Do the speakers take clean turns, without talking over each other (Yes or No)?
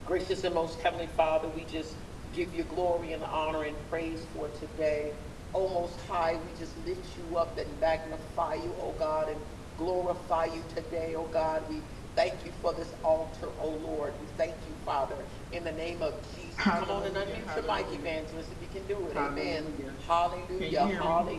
No